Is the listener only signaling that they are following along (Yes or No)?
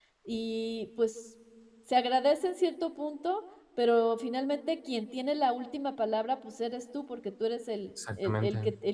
Yes